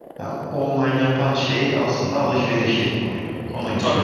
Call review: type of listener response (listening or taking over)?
taking over